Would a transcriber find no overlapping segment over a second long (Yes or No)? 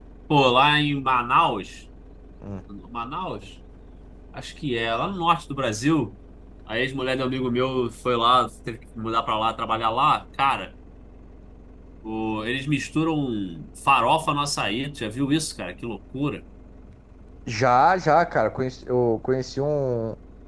Yes